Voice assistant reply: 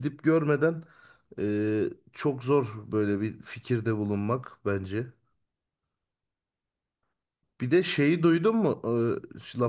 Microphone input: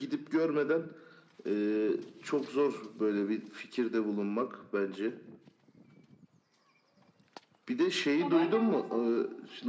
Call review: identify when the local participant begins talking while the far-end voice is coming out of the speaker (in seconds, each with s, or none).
8.2 s